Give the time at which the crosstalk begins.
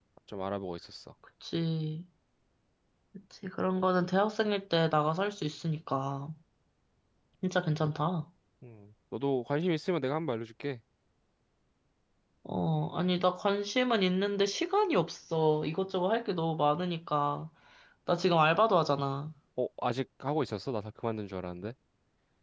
none

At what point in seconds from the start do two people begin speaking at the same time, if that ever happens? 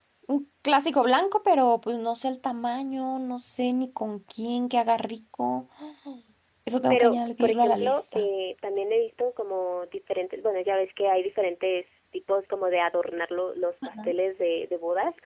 7 s

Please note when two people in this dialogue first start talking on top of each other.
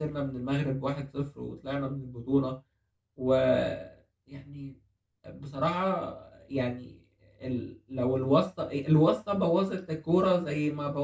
none

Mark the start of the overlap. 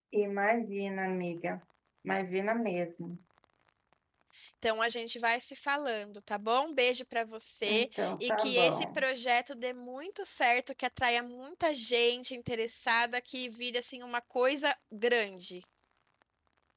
8 s

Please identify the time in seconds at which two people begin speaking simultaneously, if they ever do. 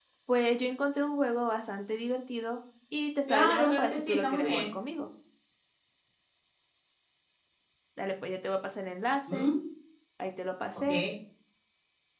3 s

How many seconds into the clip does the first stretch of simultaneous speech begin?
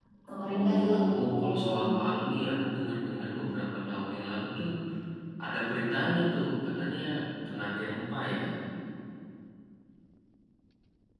1 s

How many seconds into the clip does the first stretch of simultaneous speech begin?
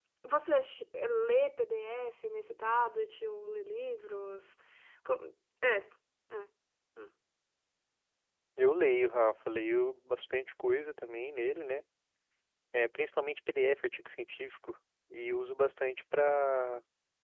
none

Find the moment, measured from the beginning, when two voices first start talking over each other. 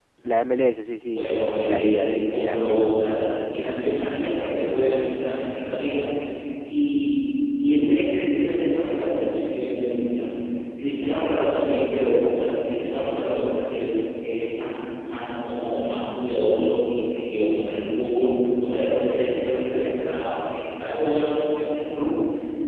1 s

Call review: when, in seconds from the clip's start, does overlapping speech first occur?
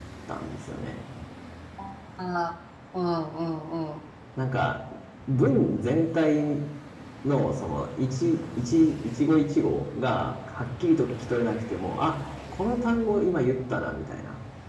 none

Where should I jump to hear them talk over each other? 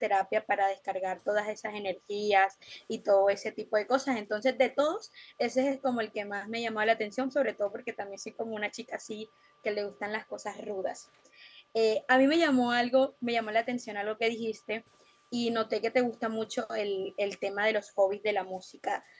none

